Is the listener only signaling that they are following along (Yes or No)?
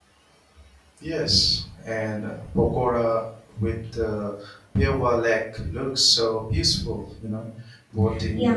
Yes